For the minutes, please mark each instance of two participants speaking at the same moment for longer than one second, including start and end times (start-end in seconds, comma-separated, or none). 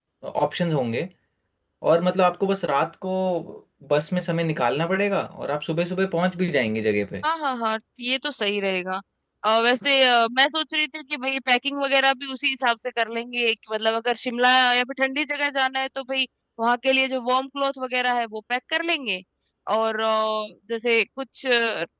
none